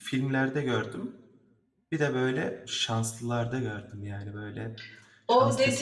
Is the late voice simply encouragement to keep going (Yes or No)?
No